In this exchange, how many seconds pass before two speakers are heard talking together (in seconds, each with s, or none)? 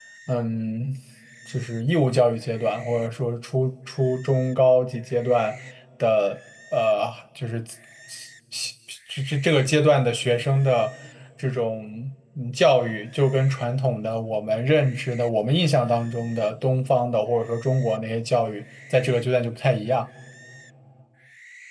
none